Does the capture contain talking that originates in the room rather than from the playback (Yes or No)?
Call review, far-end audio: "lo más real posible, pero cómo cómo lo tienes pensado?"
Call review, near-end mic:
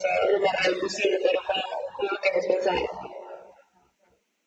No